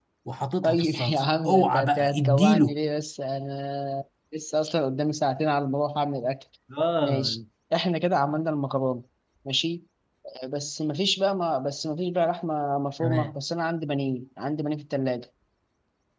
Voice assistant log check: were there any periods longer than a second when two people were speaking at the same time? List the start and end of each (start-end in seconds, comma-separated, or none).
0.6-2.8